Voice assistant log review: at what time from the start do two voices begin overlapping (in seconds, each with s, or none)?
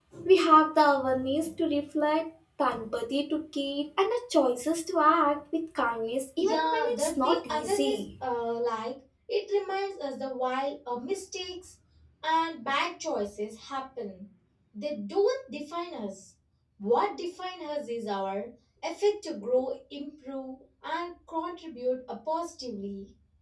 6.4 s